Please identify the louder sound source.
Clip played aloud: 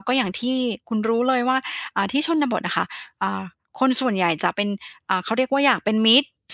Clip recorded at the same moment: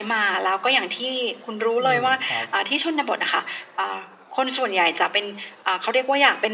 echo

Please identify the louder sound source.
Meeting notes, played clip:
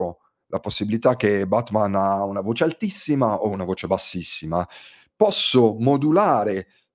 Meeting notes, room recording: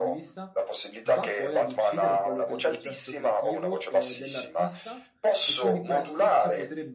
echo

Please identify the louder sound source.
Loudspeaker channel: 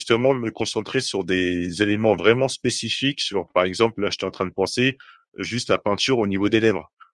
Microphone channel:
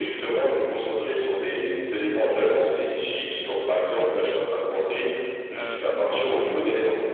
echo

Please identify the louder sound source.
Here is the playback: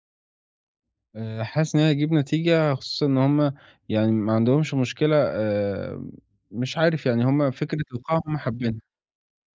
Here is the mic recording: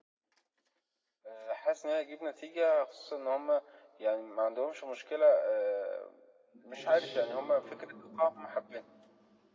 echo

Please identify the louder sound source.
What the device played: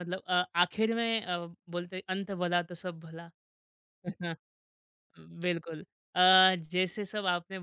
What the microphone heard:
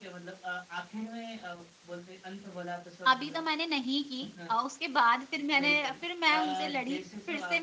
user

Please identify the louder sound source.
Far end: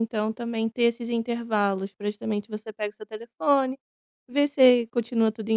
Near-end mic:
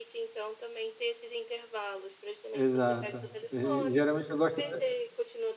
user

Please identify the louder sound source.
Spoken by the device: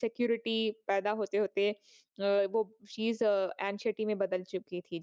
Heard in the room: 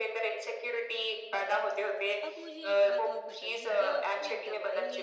echo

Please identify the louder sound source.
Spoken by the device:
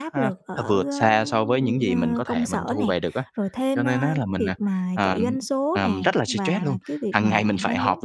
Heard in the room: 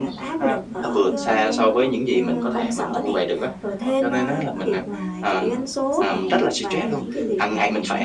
echo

